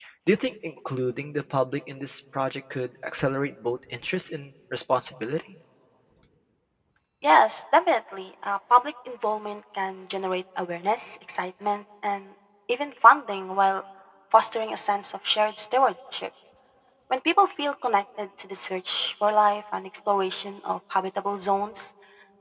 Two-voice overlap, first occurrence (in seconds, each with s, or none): none